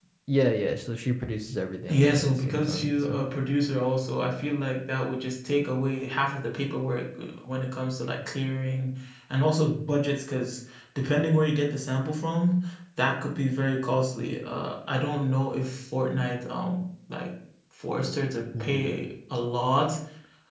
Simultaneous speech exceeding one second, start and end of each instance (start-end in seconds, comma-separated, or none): 1.9-3.2